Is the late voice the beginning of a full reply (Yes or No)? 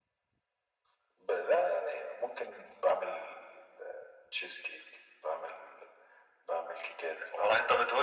Yes